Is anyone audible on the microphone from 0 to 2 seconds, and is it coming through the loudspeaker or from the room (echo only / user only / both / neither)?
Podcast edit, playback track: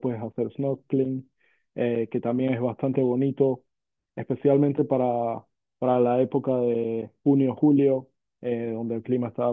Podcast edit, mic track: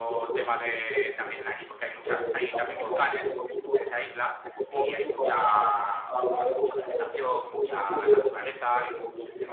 both